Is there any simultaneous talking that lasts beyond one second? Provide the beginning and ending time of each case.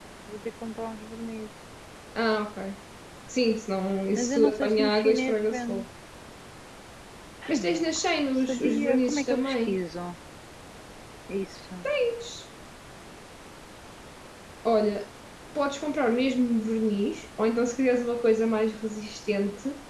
4.2-5.8, 7.5-9.8

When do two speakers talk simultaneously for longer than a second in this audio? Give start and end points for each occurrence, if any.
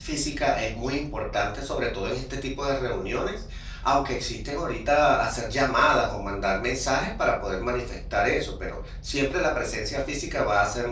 none

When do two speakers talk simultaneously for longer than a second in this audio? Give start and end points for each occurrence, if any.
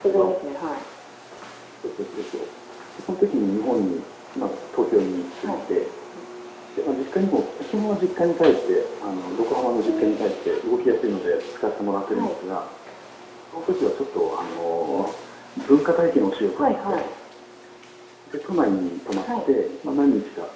none

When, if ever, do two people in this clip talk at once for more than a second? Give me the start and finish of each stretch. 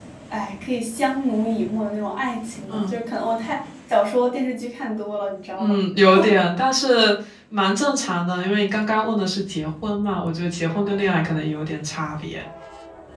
none

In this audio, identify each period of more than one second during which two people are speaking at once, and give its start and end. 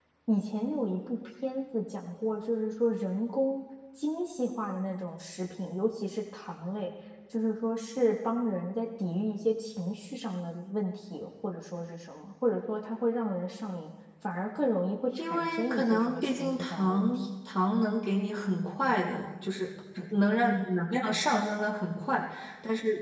15.2-17.2

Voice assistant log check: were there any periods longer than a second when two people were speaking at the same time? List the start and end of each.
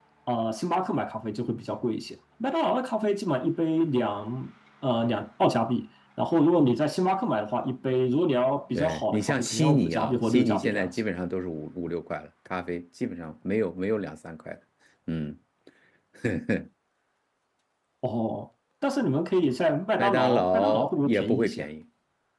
8.8-11.0, 20.0-21.7

